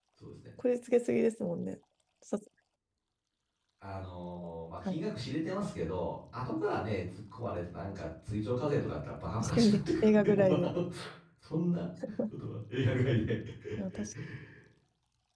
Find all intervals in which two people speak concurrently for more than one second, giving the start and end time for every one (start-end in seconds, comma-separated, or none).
9.4-10.7